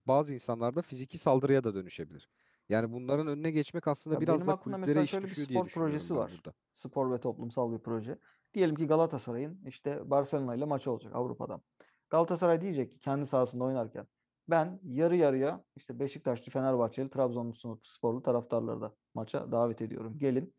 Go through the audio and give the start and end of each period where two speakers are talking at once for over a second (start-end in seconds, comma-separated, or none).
4.1-6.3